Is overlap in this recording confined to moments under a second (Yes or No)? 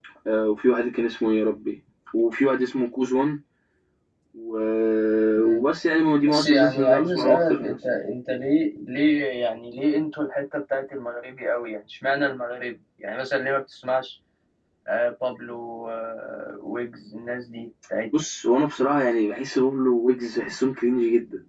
No